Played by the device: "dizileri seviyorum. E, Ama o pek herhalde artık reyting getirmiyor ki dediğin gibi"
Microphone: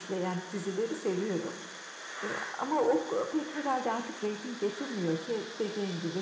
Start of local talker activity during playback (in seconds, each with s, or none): none